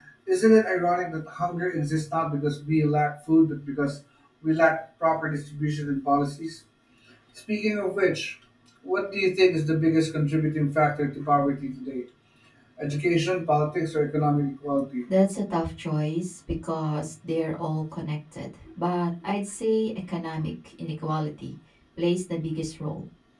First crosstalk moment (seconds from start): none

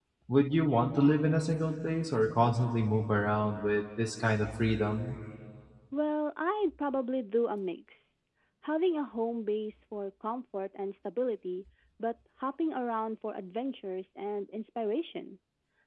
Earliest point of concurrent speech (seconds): none

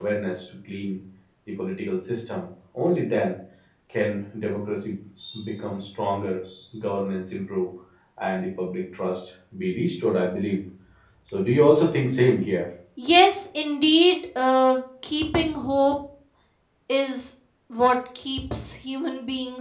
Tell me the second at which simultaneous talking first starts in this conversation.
none

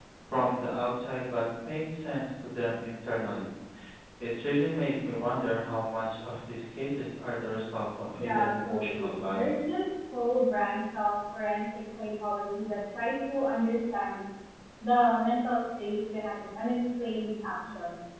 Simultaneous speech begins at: 8.2 s

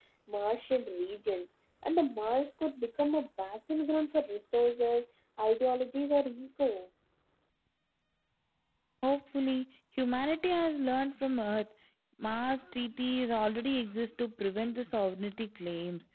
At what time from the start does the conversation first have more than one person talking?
none

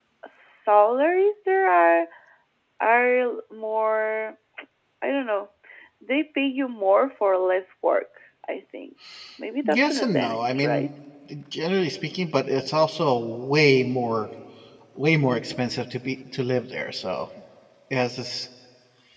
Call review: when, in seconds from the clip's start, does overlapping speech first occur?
9.6 s

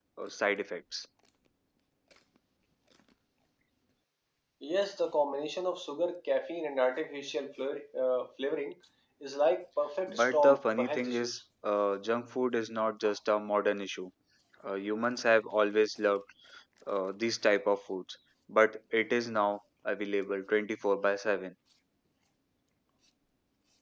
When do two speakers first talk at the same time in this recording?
10.1 s

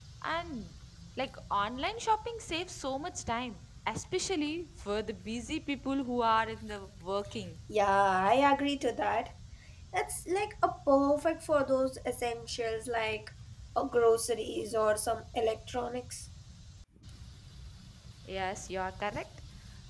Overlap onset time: none

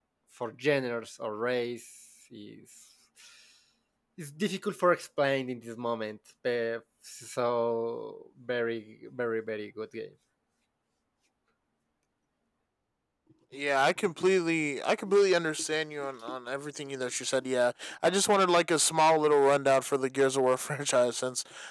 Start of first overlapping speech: none

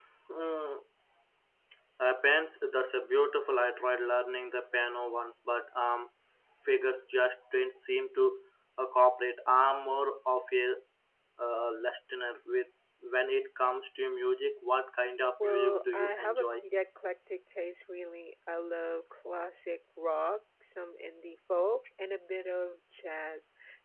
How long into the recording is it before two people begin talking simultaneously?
15.4 s

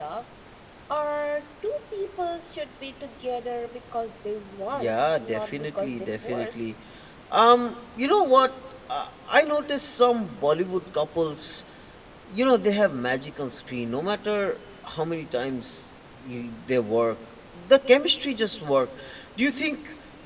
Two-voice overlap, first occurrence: 4.7 s

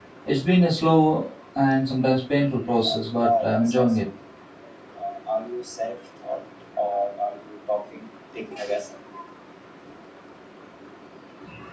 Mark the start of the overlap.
2.7 s

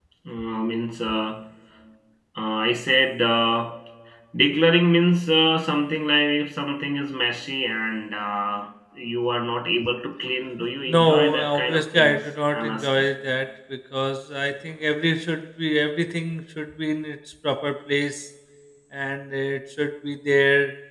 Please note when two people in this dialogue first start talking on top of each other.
10.9 s

